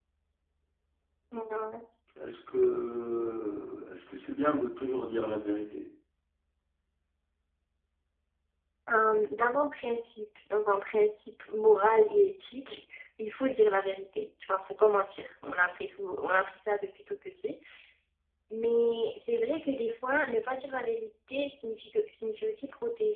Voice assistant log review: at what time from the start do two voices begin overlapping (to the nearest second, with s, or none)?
none